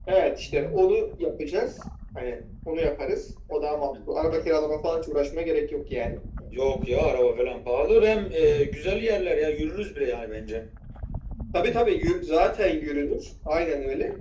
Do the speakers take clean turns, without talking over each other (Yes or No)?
Yes